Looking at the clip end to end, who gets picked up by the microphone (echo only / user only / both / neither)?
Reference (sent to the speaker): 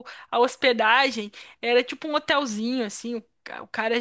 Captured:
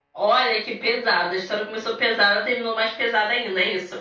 user only